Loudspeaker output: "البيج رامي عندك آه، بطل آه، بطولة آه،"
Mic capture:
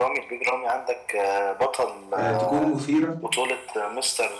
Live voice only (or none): آه، تكون مثيرة